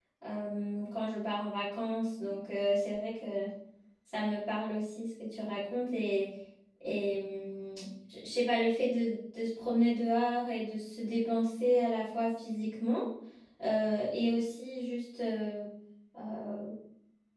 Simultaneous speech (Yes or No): No